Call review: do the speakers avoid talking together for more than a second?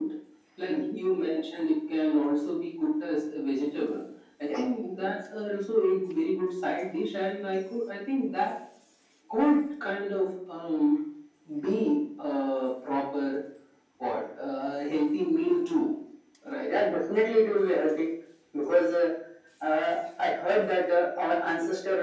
Yes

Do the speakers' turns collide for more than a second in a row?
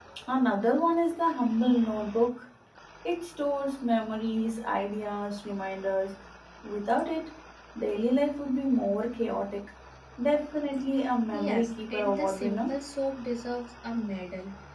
Yes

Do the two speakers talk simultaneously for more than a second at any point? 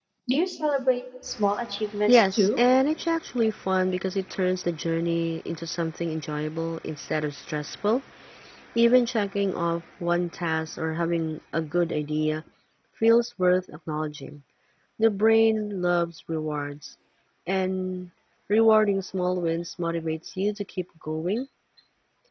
No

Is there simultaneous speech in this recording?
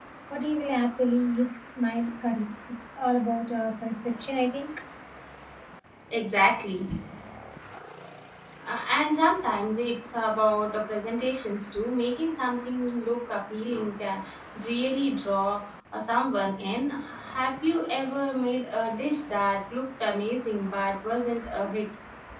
No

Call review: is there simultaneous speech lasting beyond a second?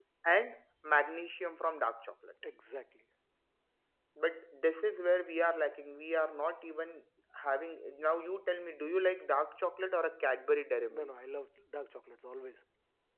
No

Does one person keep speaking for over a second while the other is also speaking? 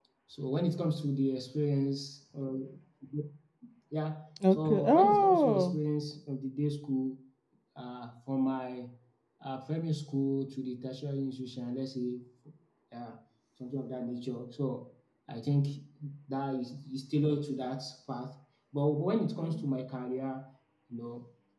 Yes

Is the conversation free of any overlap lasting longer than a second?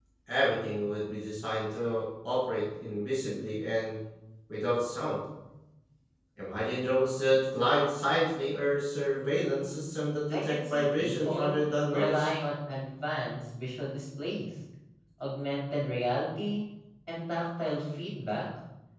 No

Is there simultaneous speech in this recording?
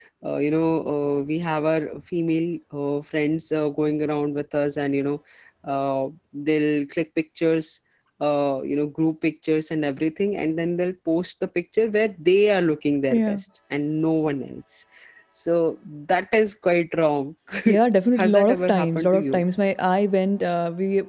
Yes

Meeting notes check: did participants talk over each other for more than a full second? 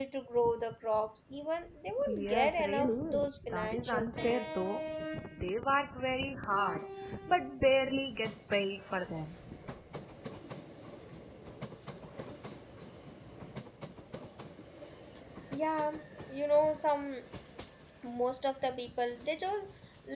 Yes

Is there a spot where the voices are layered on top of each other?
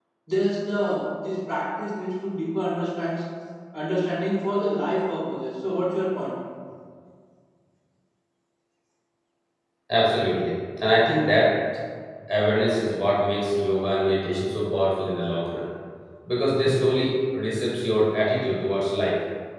No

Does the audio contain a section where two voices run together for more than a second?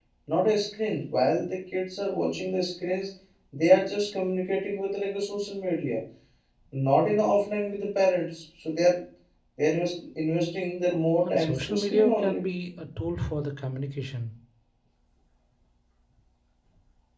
Yes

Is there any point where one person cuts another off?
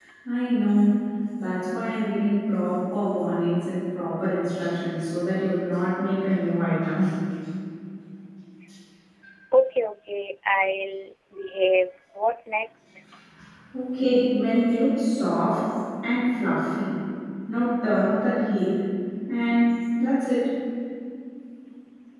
No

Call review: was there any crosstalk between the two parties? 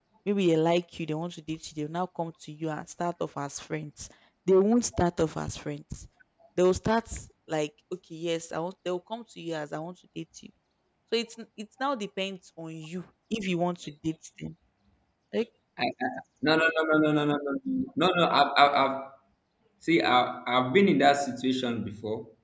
No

